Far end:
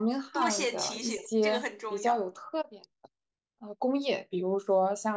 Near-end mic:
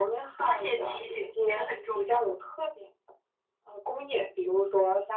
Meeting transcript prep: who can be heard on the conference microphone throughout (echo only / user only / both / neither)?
echo only